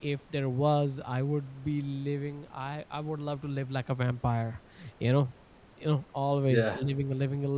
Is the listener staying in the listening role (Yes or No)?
Yes